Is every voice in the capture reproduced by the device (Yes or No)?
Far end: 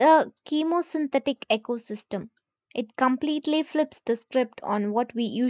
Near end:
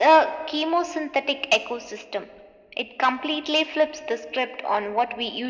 Yes